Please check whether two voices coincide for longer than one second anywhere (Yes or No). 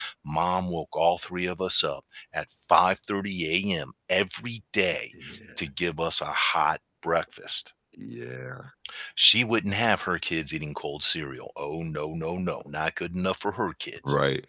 No